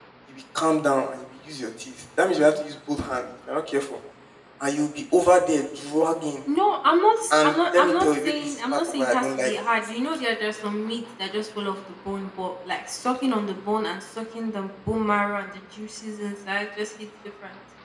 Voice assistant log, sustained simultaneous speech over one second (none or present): present